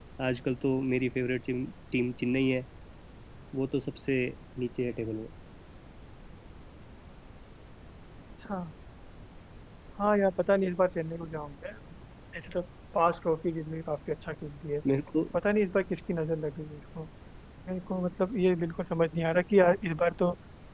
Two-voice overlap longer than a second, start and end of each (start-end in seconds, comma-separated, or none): none